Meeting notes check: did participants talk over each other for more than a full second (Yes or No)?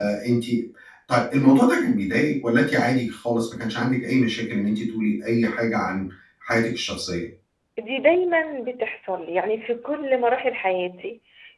No